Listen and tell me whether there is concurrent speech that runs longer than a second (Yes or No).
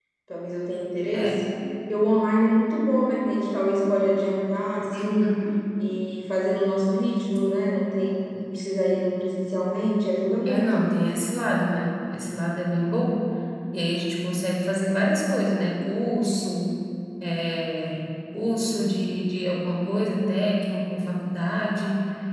No